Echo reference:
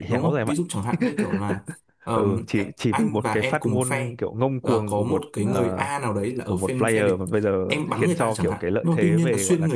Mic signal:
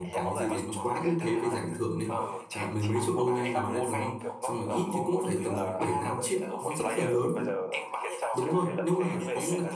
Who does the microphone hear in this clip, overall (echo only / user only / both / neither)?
both